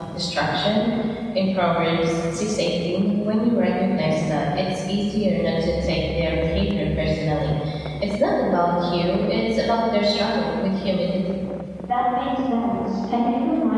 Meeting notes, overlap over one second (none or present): none